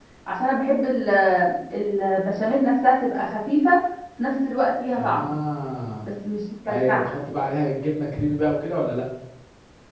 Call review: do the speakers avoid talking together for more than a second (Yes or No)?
Yes